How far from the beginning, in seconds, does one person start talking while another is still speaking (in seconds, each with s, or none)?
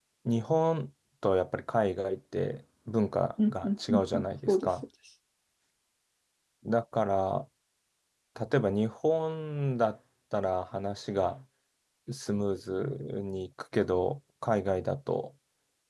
3.4 s